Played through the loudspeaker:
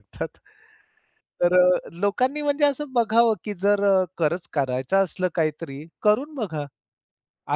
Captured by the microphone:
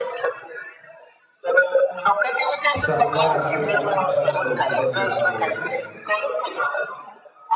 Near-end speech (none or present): present